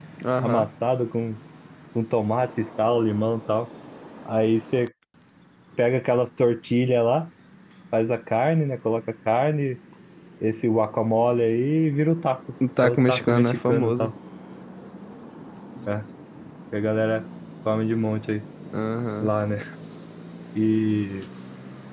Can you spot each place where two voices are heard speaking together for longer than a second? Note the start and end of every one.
12.8-14.1

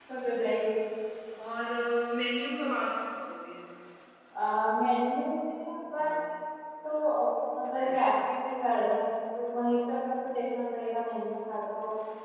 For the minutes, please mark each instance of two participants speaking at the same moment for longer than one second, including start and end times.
none

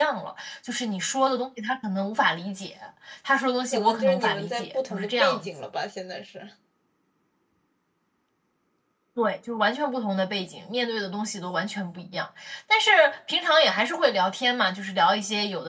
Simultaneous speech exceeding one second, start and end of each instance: 3.7-5.5

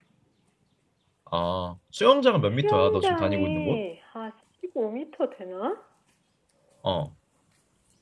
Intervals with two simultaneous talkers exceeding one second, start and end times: 2.4-3.8

